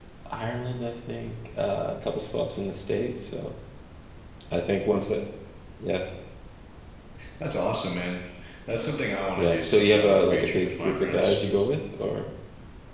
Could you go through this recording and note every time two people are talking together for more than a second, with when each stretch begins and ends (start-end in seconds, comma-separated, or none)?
9.4-11.4